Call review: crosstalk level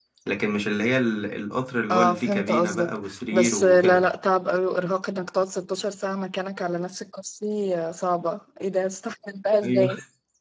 present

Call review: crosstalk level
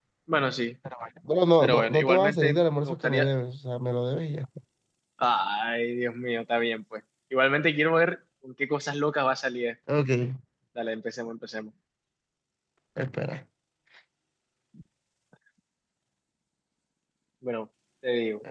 present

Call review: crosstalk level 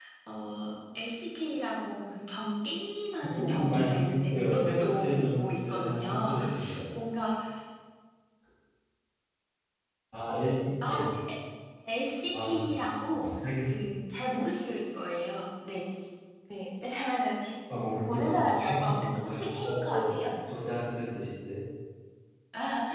present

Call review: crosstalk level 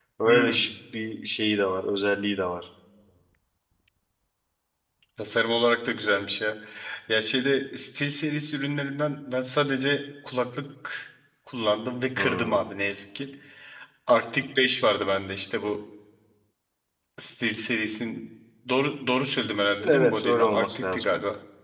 present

